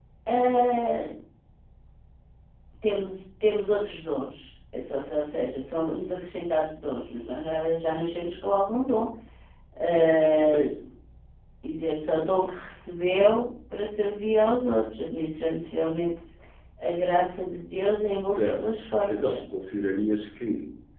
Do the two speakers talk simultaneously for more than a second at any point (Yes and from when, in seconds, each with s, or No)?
No